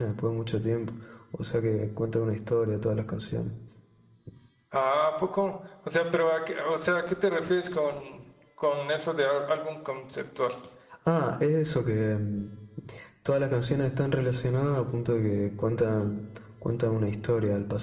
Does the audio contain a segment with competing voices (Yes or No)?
No